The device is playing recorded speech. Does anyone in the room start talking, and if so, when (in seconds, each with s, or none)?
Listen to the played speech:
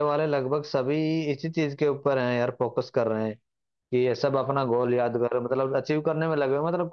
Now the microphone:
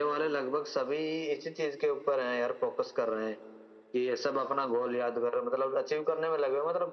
none